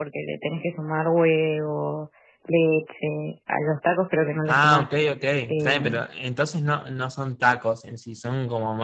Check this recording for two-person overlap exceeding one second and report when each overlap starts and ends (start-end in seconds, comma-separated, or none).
none